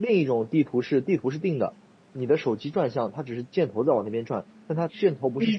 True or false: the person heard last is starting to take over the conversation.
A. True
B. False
A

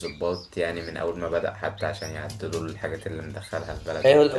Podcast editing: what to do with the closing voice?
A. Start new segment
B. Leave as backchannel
A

